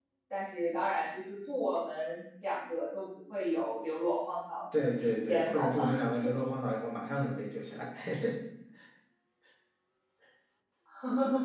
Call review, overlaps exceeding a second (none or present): present